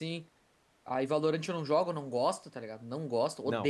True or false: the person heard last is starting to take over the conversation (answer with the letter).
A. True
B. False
A